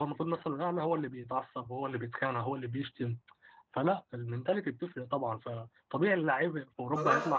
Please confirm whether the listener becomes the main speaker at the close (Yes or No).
Yes